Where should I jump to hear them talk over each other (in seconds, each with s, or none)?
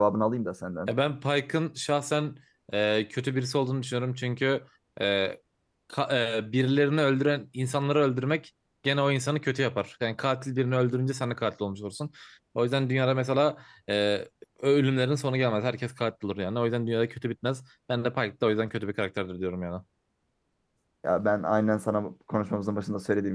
none